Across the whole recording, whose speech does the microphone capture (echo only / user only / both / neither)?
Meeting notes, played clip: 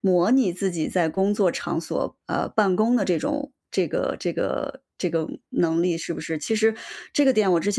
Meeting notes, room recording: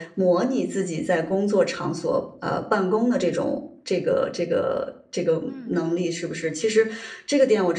both